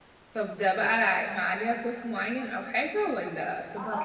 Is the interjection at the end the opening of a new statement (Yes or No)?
Yes